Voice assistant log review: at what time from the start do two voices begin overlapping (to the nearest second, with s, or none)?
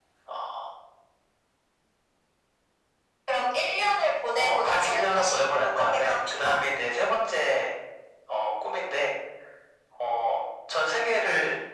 4 s